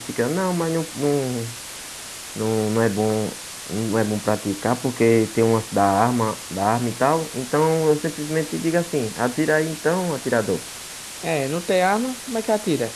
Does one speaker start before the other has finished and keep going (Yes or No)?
No